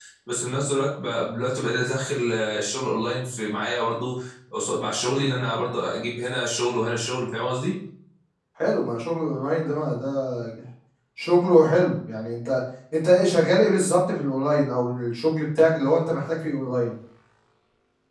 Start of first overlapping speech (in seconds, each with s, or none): none